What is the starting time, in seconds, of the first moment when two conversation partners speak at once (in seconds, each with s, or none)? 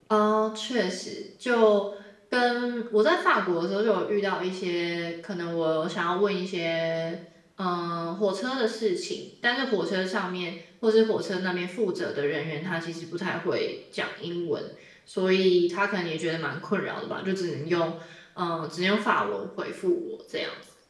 none